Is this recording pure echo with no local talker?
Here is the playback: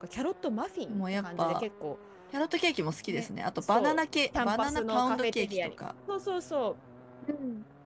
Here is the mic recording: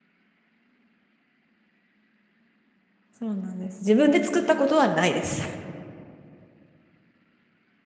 No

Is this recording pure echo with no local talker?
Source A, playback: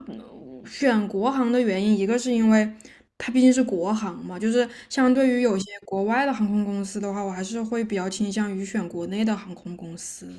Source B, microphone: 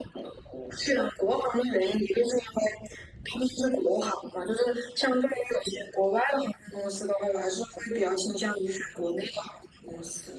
Yes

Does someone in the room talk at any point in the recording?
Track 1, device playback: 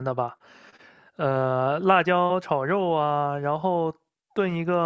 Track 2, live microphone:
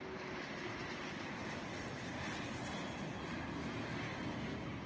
No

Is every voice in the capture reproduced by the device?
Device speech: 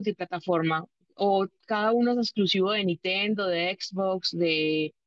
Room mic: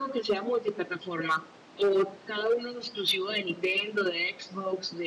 Yes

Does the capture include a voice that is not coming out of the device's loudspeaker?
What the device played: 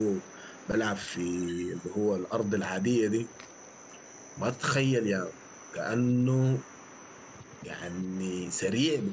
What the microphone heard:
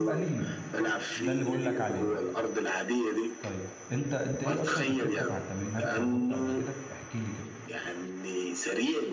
Yes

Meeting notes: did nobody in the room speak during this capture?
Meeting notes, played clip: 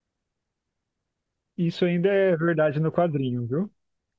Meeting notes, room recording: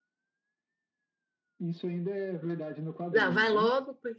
No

